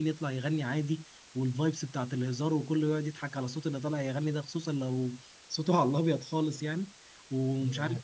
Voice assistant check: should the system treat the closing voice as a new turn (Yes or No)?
No